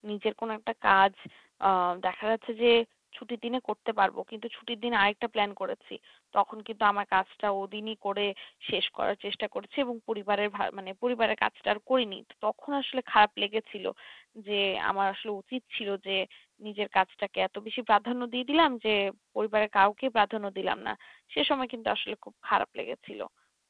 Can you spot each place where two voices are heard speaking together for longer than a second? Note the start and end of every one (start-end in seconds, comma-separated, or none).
none